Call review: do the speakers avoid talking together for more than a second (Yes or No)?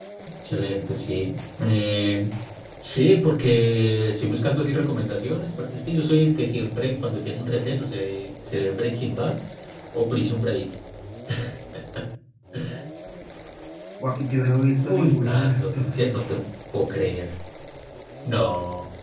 No